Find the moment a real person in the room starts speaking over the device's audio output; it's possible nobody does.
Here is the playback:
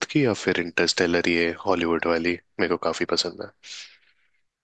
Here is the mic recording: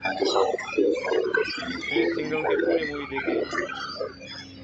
1.9 s

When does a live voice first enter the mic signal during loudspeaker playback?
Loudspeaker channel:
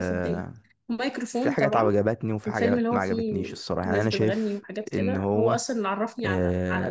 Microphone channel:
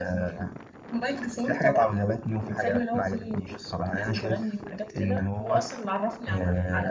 none

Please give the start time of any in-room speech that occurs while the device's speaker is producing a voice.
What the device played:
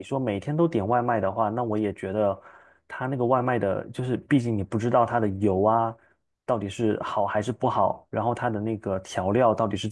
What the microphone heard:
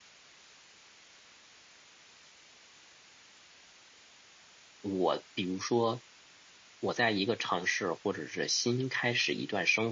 4.8 s

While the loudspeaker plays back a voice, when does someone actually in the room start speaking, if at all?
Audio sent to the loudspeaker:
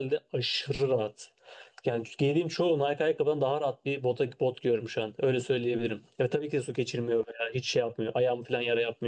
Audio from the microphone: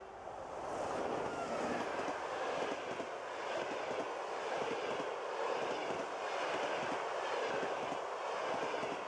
none

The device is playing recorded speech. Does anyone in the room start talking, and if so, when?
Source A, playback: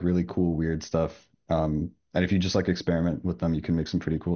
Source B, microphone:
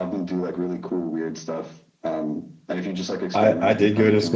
3.3 s

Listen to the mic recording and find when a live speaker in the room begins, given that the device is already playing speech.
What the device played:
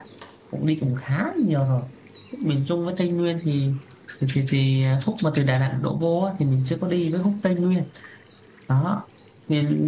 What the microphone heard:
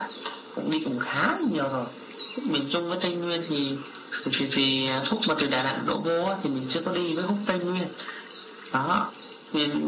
none

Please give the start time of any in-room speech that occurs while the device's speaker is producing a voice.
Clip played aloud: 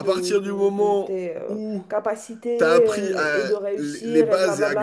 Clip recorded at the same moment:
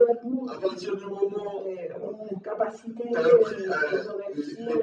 none

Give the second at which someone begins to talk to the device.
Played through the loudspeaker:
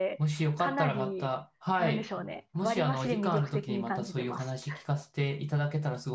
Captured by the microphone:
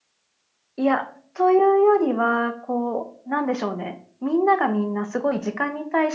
0.8 s

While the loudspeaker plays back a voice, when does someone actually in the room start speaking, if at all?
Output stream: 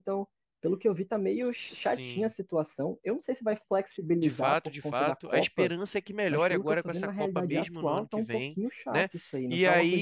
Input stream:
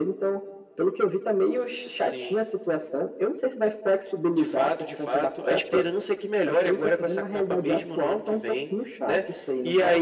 none

